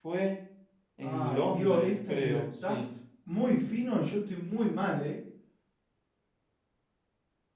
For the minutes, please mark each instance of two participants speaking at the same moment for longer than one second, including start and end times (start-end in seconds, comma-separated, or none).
1.0-2.8